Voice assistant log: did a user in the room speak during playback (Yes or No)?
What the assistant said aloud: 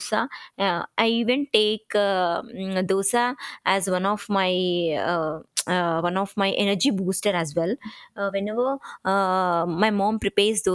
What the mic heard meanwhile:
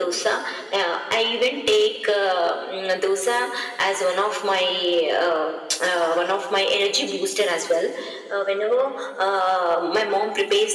No